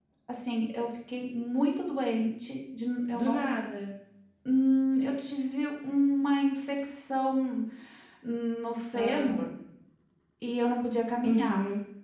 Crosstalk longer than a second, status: none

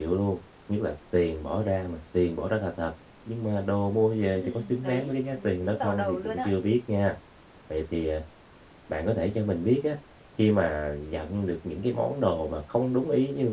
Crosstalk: present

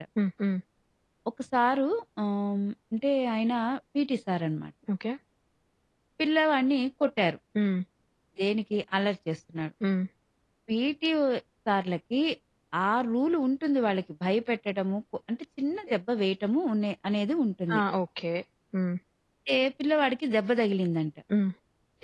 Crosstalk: none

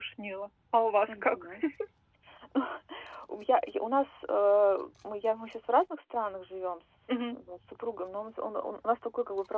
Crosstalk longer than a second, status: none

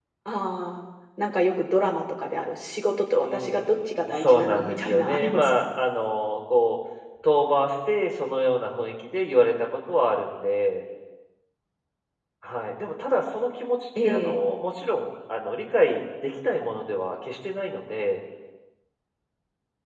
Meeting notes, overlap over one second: present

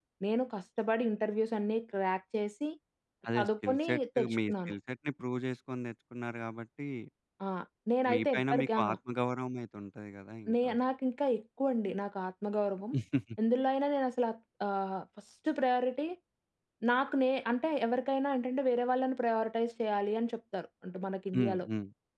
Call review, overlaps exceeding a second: present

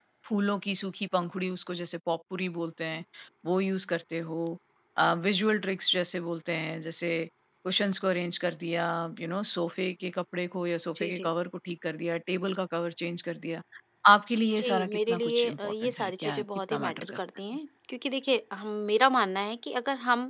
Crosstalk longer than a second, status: present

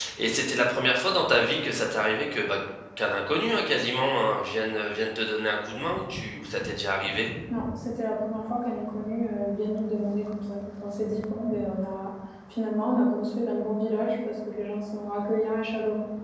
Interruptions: none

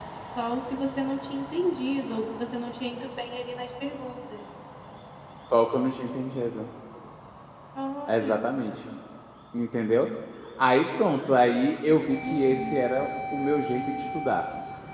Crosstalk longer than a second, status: none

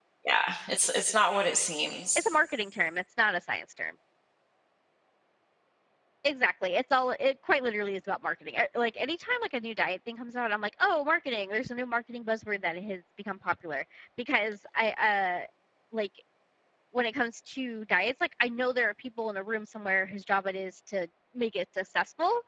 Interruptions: none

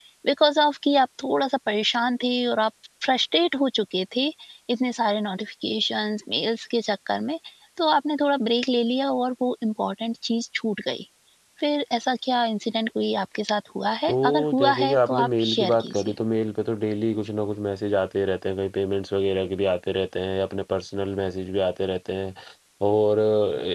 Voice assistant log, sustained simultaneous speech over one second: present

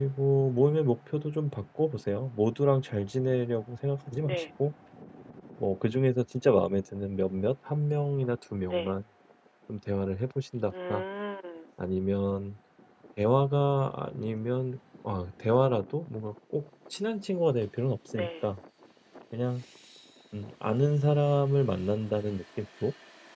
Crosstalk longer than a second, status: none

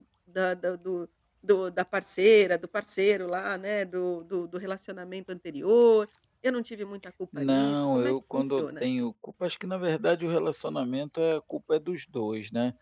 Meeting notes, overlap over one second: present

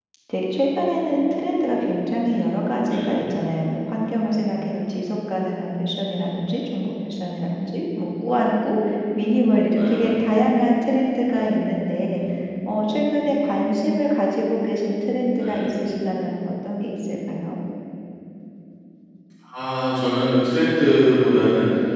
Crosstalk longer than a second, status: none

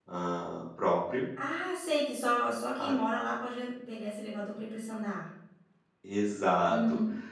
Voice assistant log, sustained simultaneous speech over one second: none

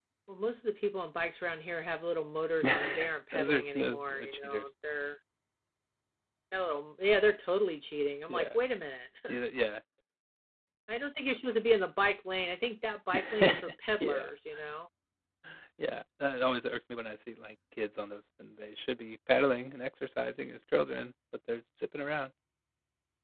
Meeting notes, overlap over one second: present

